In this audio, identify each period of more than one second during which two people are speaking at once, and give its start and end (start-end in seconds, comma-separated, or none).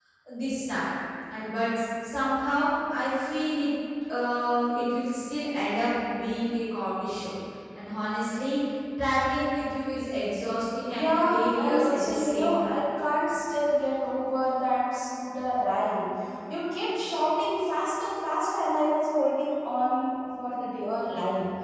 10.9-12.8